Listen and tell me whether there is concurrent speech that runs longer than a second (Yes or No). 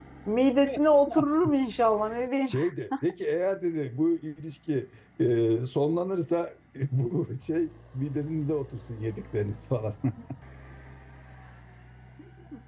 No